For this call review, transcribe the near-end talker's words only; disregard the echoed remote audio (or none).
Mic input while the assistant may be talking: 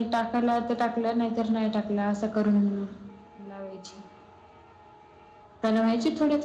none